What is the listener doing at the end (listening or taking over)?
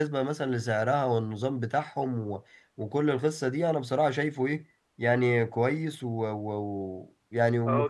taking over